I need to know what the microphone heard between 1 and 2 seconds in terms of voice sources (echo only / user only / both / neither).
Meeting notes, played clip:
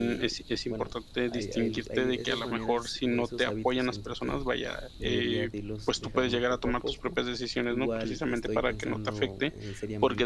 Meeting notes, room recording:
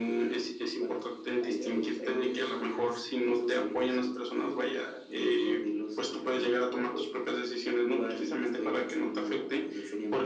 echo only